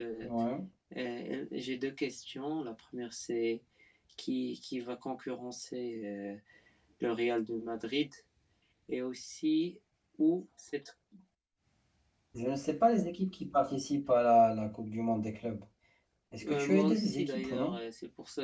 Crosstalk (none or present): present